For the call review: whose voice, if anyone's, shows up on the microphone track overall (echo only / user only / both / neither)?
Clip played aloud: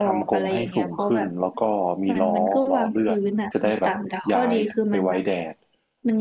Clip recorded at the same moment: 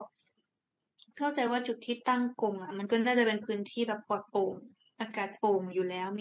user only